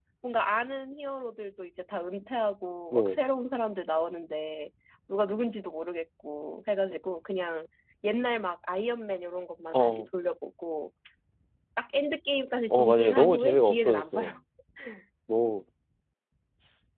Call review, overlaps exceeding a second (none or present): present